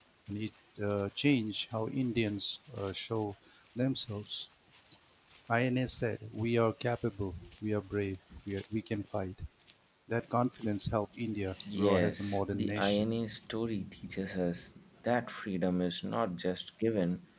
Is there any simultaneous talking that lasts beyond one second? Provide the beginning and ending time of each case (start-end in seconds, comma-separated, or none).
11.7-13.0